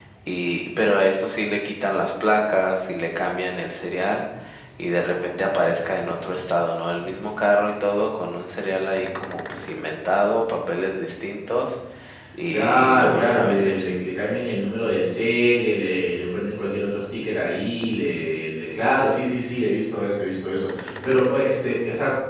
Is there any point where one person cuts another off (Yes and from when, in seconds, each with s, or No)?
Yes, from 12.5 s